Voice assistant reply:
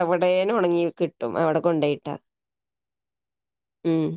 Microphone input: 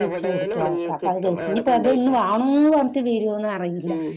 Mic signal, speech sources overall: both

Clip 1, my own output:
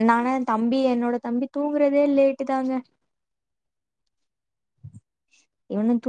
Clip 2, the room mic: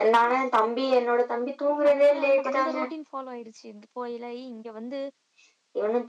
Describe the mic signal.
both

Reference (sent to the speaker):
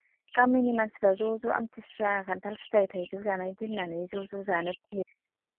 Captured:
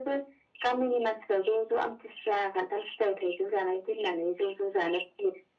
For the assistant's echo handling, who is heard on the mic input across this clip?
echo only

